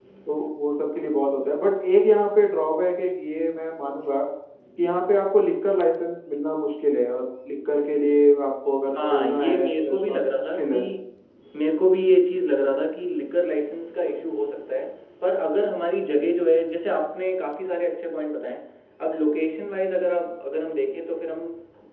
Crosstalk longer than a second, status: present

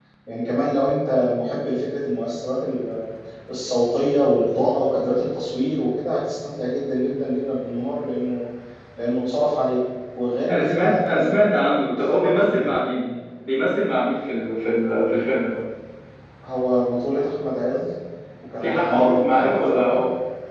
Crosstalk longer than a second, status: present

